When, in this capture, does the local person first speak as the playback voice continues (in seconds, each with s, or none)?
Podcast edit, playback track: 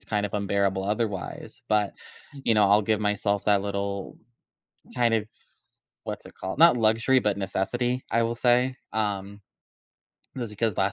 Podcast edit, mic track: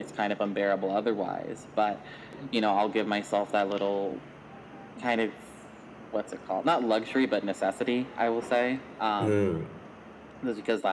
9.2 s